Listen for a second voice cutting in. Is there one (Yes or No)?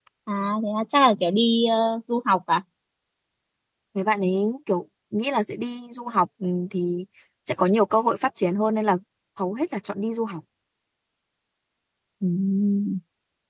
No